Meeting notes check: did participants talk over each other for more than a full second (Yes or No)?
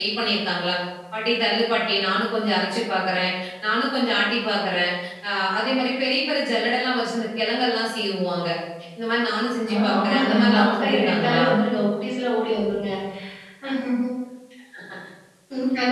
Yes